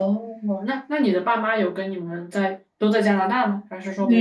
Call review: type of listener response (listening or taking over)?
taking over